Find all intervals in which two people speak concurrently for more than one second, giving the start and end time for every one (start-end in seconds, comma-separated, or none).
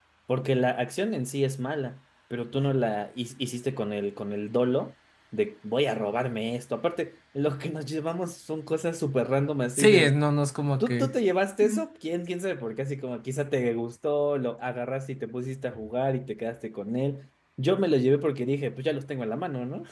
none